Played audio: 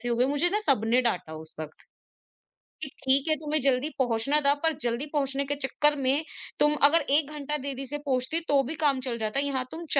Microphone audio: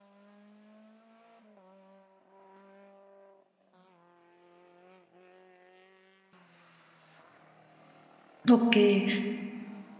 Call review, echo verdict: none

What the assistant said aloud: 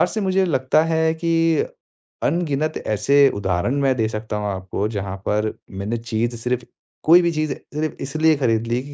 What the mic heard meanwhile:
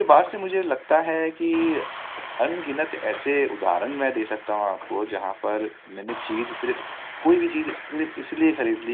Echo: present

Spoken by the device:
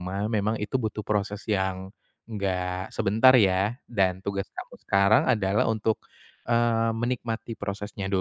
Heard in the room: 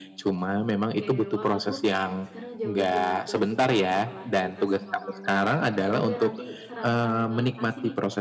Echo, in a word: present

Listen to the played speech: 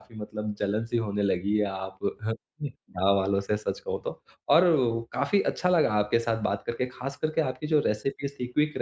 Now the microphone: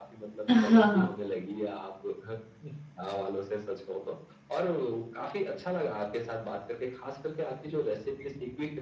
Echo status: present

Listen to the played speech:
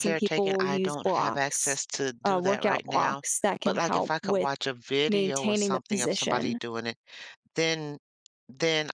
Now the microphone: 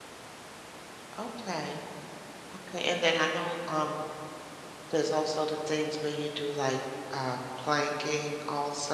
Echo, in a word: none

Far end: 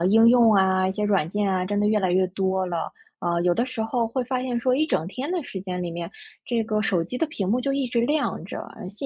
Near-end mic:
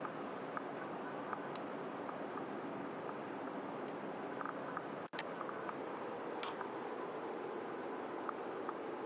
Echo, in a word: none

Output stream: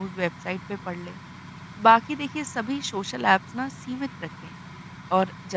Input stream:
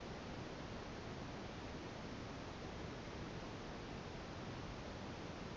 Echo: none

